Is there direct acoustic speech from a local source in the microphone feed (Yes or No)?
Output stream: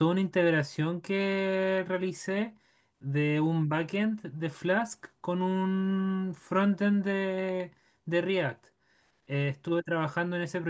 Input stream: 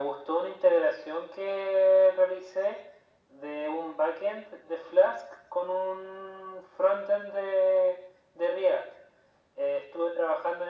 No